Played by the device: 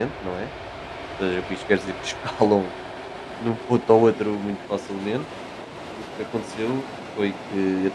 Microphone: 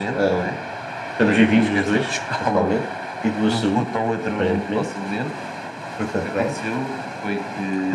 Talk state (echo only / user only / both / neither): both